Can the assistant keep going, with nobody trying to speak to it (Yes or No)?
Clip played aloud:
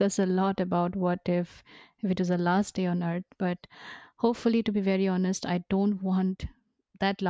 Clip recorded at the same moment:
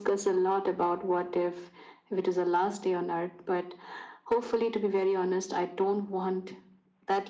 Yes